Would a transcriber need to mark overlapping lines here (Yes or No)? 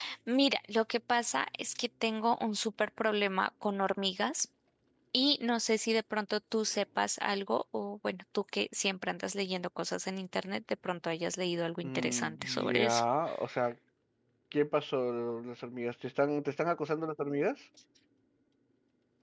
Yes